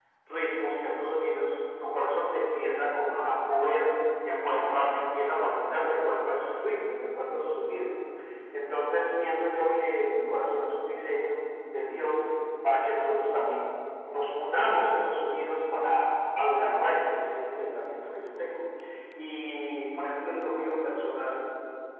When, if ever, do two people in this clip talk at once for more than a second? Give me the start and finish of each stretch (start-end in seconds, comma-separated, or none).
none